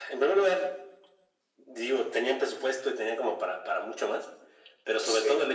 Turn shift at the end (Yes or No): No